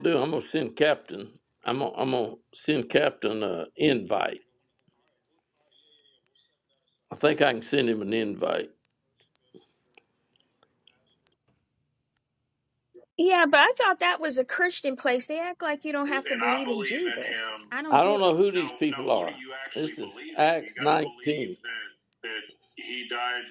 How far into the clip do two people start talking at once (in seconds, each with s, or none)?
16.1 s